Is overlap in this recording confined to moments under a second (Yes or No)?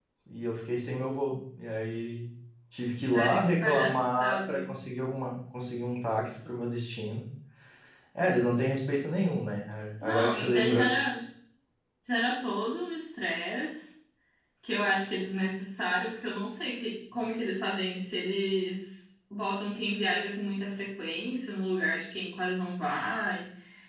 No